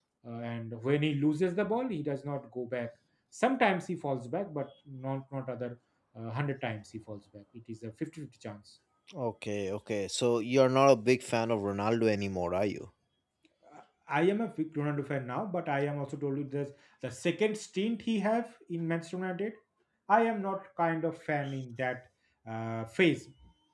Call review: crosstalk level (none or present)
none